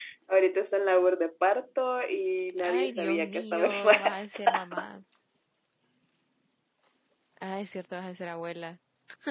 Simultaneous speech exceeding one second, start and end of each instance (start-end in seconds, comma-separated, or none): 2.6-4.7